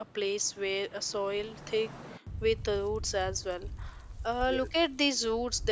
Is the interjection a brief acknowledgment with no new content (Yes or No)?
Yes